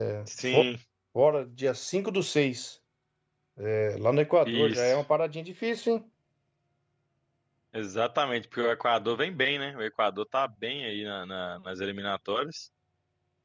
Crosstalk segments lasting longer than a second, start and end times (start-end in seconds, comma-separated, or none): none